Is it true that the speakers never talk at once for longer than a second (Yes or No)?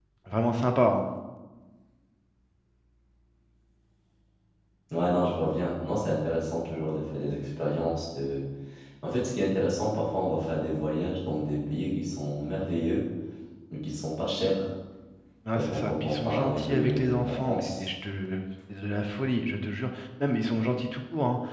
No